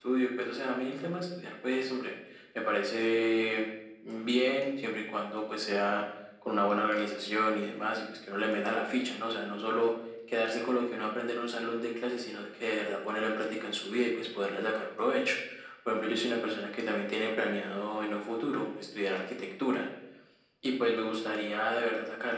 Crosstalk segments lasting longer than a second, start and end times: none

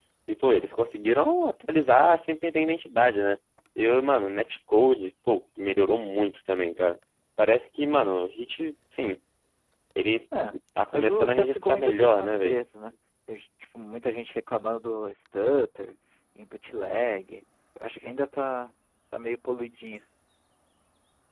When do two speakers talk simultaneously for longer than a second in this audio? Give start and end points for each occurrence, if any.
10.9-12.6

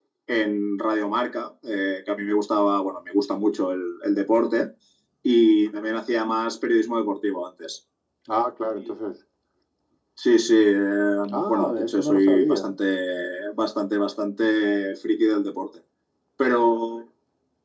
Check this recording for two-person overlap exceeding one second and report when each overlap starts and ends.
11.3-12.6

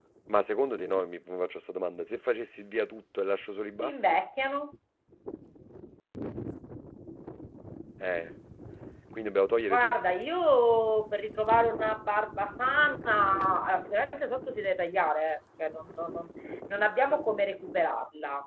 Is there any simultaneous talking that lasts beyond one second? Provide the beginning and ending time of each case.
none

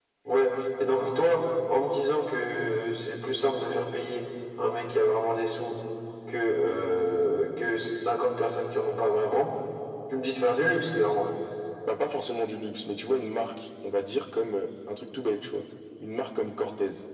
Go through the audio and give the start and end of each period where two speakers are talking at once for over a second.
none

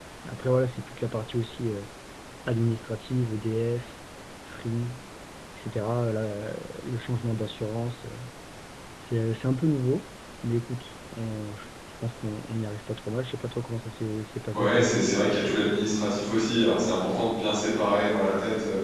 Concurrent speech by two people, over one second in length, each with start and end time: none

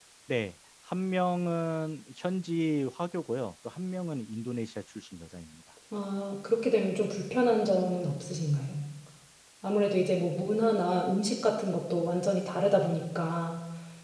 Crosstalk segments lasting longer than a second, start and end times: none

